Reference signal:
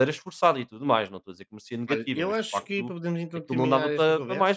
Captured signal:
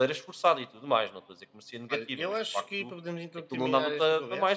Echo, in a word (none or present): present